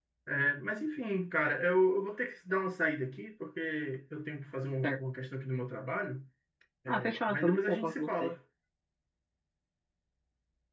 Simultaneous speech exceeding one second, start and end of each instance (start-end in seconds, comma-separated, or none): 6.9-8.3